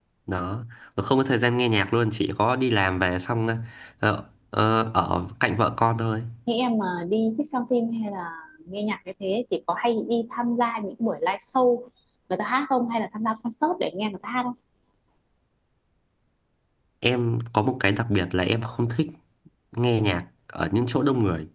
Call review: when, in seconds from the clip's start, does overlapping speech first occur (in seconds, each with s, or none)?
none